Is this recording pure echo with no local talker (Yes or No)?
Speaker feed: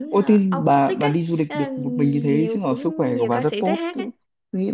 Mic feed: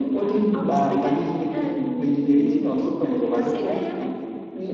Yes